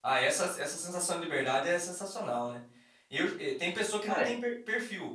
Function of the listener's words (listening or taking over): listening